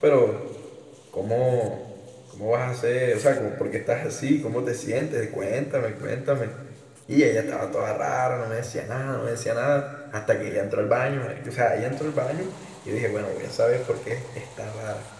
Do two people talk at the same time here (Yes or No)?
No